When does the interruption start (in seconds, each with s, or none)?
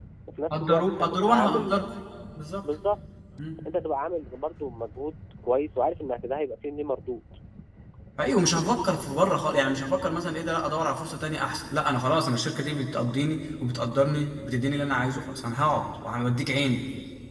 0.5 s